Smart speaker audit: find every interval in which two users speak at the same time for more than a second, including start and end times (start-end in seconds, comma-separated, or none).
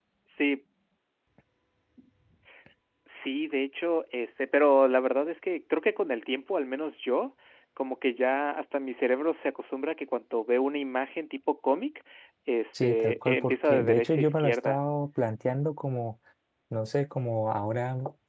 12.8-14.8